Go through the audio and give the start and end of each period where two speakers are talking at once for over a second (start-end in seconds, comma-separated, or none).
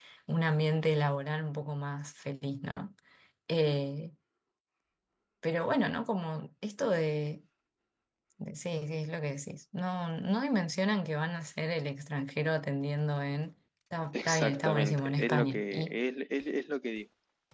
14.1-16.0